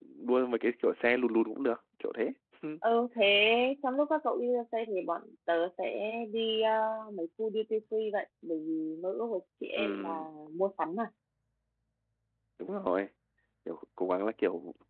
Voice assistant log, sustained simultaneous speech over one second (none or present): none